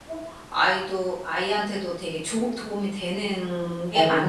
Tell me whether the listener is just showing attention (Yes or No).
No